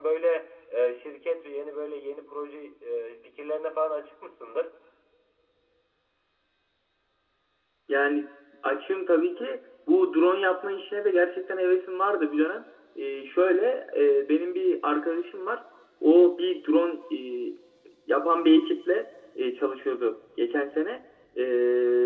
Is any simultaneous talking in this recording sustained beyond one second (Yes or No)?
No